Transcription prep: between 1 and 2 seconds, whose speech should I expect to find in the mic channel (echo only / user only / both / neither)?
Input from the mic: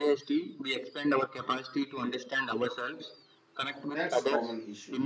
echo only